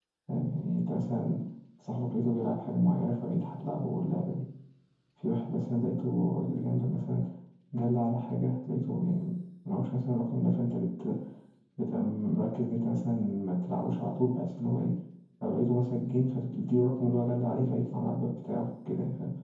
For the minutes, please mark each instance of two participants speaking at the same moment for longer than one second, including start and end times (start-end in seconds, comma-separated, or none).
none